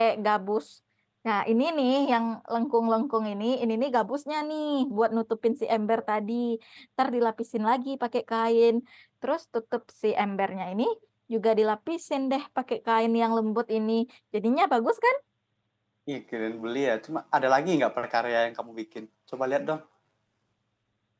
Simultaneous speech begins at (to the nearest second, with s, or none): none